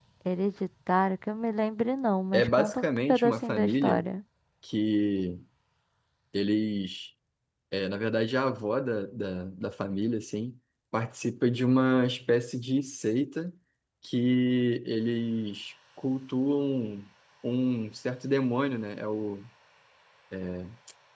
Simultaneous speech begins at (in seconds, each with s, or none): 2.3 s